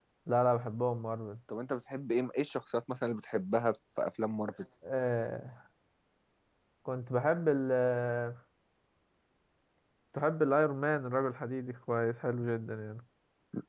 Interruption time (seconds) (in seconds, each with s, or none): none